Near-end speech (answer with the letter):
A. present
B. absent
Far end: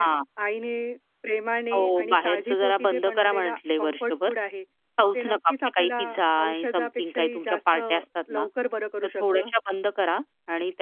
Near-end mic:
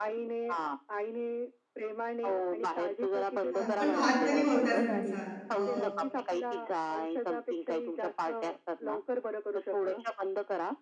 A